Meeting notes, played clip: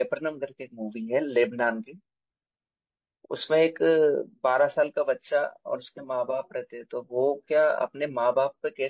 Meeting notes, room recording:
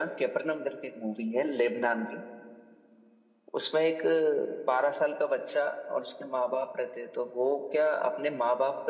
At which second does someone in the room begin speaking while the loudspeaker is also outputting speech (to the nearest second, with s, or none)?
none